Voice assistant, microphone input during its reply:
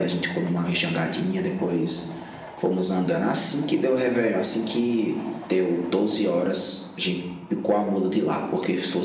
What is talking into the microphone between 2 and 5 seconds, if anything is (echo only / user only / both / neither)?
echo only